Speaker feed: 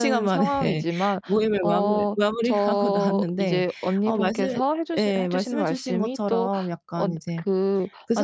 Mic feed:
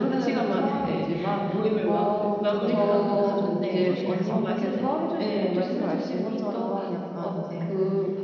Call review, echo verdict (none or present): present